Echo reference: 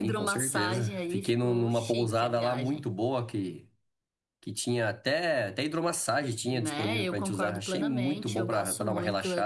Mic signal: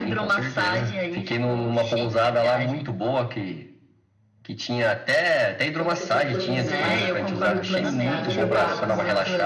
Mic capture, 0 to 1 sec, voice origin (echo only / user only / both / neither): echo only